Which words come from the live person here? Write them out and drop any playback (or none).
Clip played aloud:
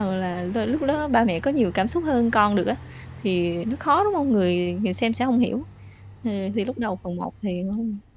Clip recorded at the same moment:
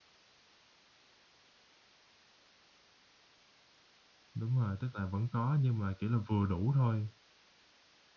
Đúng rồi, tức là vẫn có, nhưng mà, kiểu là, vừa đủ thôi.